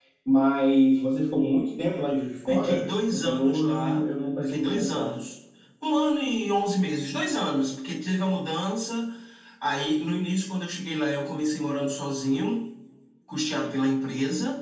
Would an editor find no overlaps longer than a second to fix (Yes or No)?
No